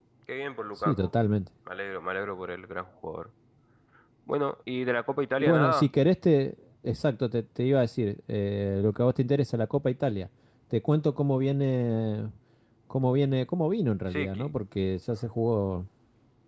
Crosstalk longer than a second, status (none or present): none